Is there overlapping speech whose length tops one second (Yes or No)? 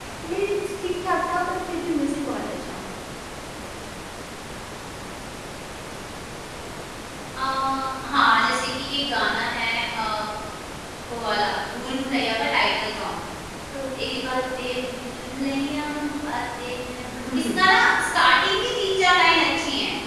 No